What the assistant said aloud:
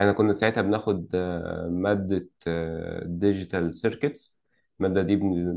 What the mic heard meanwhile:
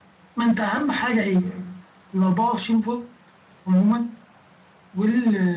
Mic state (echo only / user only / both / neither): user only